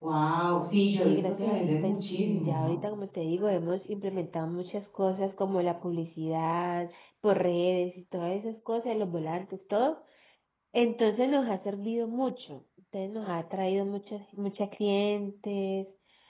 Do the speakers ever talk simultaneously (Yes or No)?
Yes